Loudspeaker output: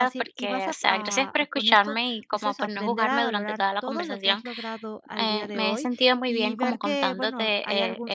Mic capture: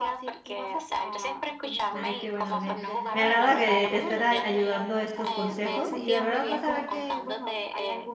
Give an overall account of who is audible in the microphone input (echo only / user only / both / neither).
both